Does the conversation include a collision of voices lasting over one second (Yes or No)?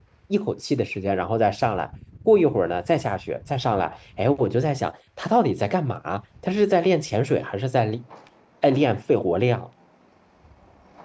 No